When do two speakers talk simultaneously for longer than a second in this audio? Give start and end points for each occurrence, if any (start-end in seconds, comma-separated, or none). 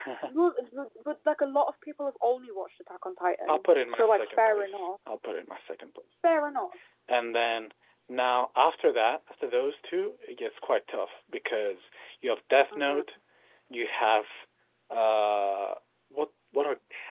3.5-4.9